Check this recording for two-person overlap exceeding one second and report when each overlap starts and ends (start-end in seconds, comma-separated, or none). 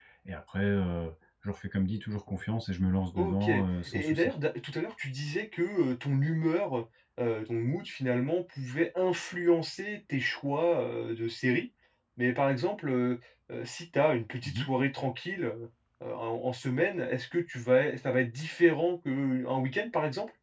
3.1-4.3